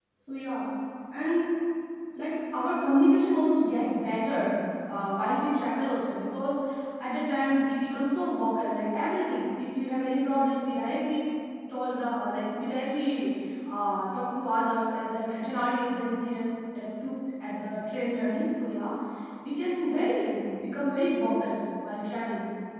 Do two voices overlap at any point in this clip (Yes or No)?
No